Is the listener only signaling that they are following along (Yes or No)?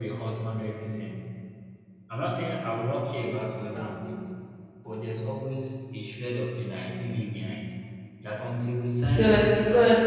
No